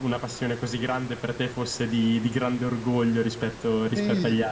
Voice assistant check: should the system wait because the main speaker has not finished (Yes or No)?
No